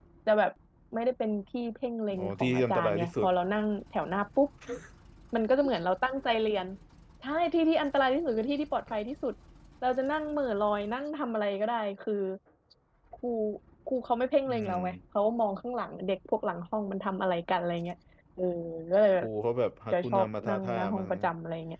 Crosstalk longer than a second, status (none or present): present